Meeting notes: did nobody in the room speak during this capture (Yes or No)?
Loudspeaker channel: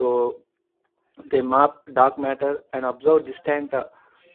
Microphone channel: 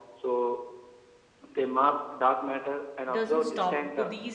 No